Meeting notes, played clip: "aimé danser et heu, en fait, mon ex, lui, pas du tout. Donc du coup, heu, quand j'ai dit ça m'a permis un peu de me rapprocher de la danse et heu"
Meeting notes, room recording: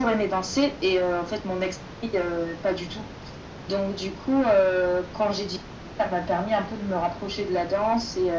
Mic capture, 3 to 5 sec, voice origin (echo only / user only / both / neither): echo only